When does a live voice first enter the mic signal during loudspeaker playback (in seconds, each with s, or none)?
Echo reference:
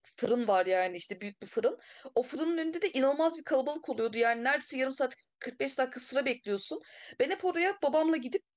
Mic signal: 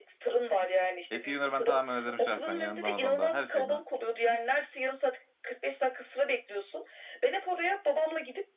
1.1 s